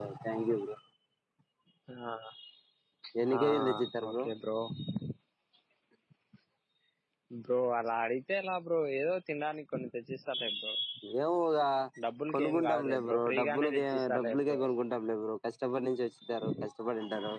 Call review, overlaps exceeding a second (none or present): present